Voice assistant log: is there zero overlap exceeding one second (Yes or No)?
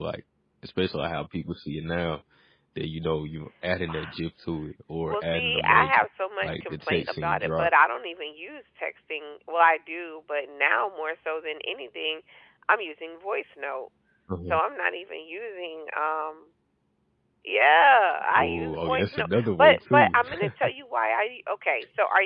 No